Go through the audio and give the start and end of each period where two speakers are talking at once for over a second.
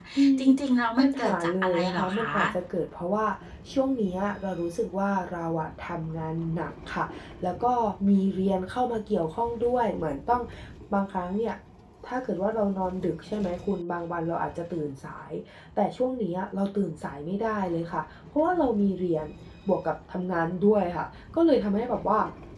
1.0-2.3

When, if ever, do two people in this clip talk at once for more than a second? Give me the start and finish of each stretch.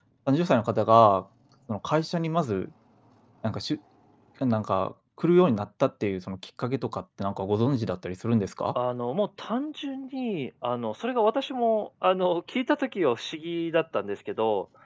none

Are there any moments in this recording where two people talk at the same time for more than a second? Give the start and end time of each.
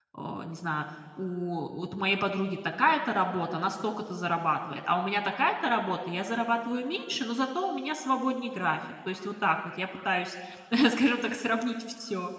none

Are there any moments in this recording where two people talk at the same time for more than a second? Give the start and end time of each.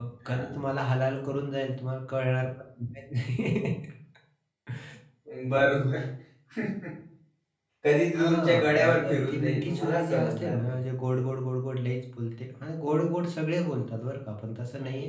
8.2-10.8

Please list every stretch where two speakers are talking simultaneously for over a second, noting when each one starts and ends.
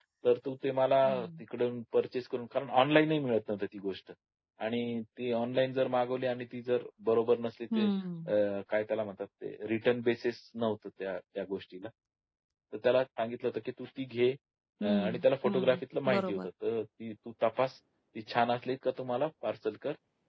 14.8-16.5

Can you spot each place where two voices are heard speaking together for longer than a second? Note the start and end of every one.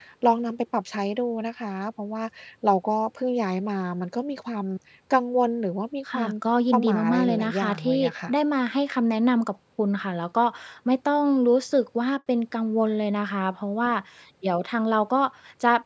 6.7-8.3

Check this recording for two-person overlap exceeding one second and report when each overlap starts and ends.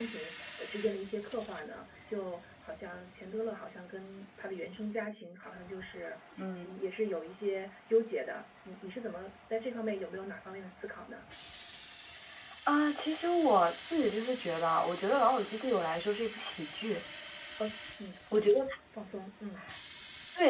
none

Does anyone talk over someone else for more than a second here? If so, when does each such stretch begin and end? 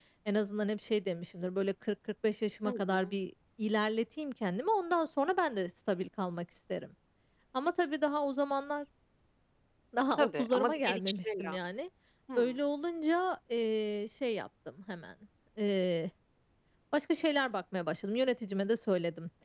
10.2-11.6

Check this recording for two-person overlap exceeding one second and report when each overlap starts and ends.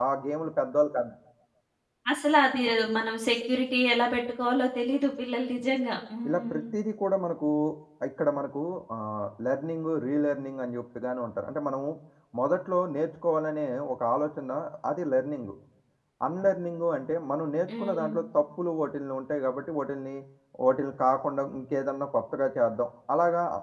none

